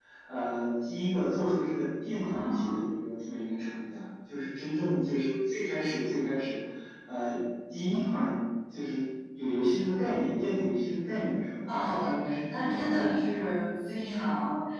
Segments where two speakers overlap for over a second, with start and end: 11.6-13.3

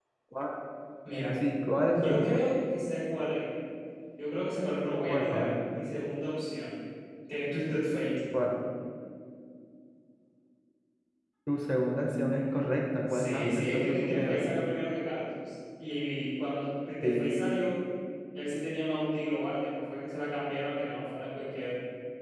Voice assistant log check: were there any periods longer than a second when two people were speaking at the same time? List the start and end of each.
13.1-14.4

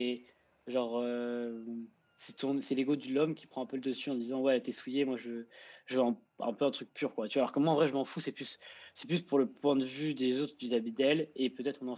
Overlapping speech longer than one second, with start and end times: none

